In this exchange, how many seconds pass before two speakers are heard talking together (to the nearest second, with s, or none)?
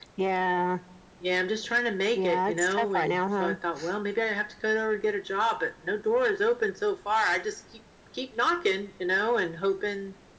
2 s